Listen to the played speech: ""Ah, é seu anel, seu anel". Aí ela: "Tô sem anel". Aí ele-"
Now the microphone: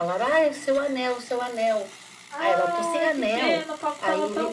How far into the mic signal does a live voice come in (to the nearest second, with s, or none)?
2 s